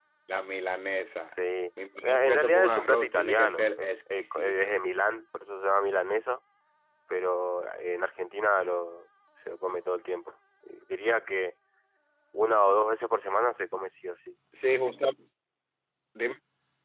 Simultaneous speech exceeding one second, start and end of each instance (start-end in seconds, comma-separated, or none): 2.0-4.8